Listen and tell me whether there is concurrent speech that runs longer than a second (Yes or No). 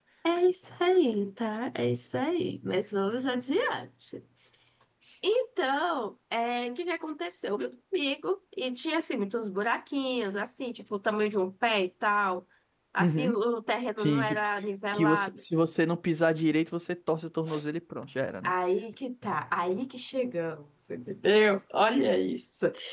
No